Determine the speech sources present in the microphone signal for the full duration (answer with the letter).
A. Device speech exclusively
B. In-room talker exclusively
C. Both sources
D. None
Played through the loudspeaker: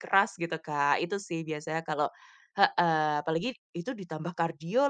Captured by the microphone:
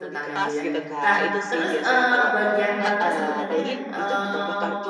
C